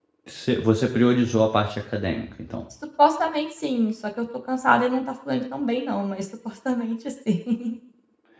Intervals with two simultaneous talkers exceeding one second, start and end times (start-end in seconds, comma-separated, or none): none